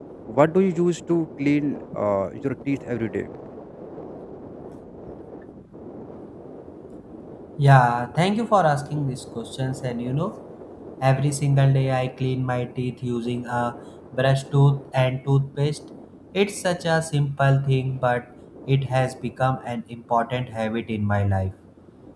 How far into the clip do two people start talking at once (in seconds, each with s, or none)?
none